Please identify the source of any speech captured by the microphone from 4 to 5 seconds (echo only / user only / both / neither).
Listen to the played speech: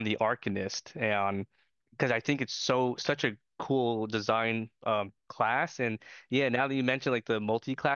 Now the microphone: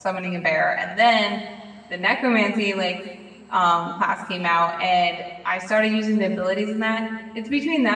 user only